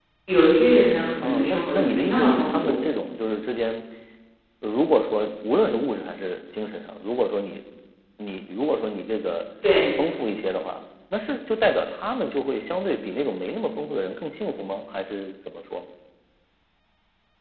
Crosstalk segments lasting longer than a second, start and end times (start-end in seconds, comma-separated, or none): 1.2-2.8